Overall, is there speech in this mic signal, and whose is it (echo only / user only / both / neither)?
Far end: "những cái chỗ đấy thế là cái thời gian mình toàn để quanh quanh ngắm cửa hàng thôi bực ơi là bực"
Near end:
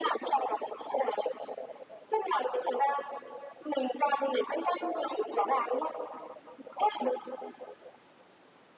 echo only